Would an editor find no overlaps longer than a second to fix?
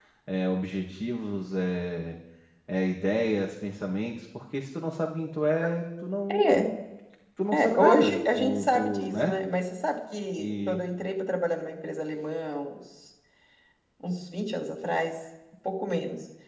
No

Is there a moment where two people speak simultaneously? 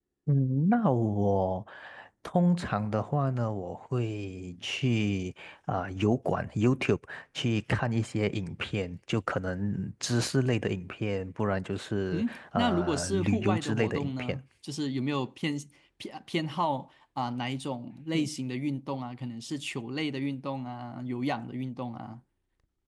Yes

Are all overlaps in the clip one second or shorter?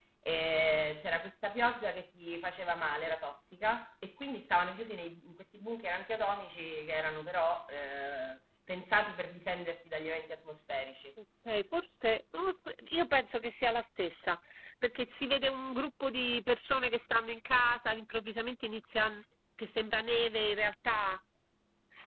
Yes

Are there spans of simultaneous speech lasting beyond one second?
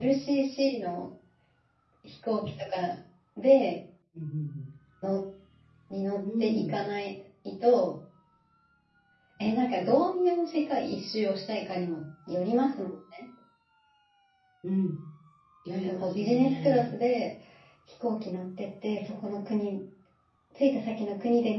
Yes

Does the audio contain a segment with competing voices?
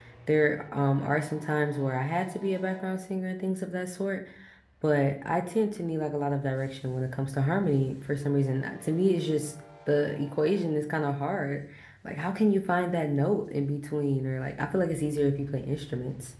No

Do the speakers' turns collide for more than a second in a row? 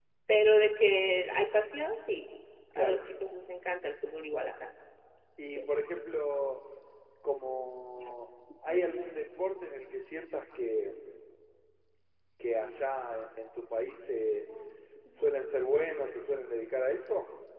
No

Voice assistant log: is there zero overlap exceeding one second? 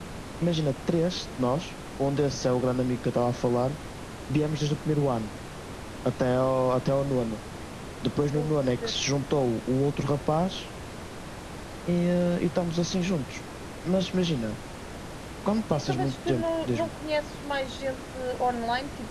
No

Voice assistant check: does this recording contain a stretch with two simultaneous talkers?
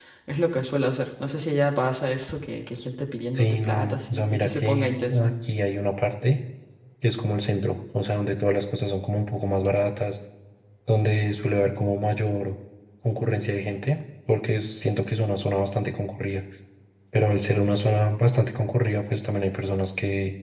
Yes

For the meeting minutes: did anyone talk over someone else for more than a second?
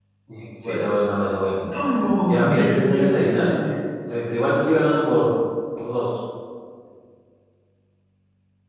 Yes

